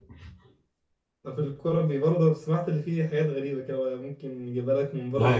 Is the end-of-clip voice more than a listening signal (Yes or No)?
Yes